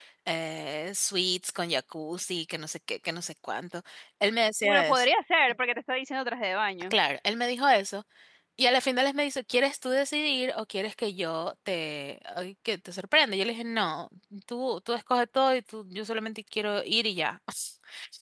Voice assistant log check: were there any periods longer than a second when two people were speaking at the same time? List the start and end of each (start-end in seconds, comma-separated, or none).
none